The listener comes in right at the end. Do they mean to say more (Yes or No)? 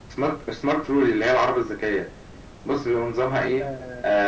Yes